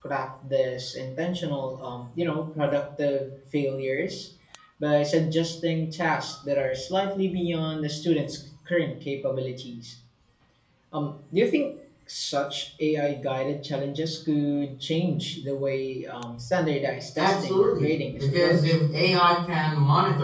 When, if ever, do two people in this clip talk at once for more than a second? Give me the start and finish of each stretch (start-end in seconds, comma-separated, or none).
17.2-18.7